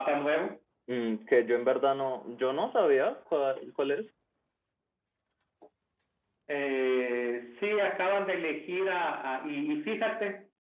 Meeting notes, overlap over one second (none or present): none